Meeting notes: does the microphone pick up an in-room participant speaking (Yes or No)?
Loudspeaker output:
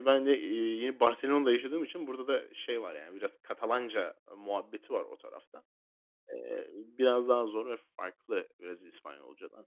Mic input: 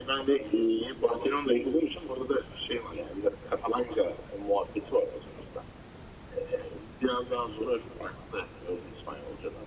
No